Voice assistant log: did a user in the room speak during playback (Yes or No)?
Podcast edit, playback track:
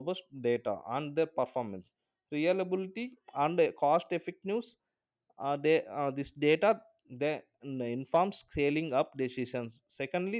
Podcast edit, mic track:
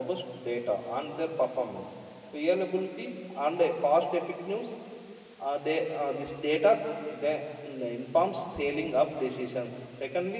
No